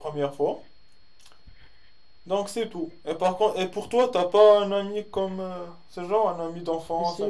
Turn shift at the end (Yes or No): Yes